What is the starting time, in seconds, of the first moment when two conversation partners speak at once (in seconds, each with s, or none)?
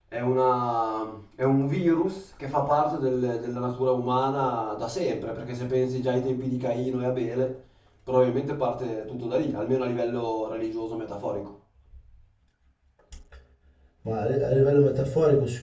none